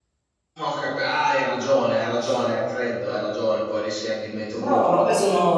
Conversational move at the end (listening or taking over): taking over